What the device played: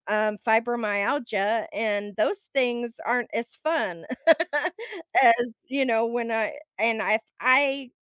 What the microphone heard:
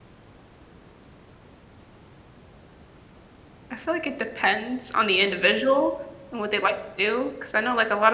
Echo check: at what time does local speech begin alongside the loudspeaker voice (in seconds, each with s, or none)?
3.7 s